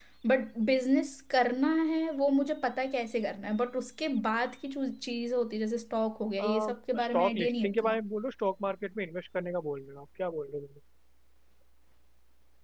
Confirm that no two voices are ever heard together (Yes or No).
No